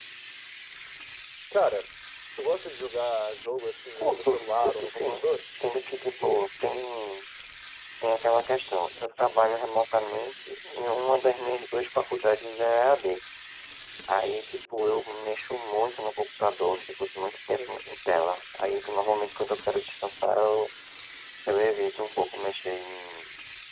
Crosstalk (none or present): present